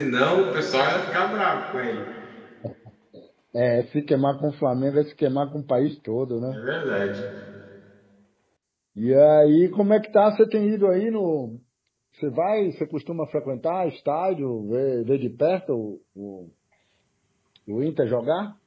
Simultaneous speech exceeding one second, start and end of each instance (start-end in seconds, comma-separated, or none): none